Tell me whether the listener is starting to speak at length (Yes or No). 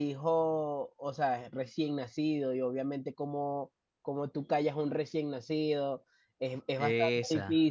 No